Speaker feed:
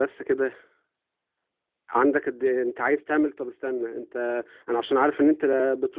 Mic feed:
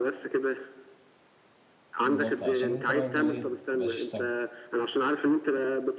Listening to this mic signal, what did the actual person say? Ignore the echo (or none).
بالظبط علشان انت برضه ايه ما تبقاش سبب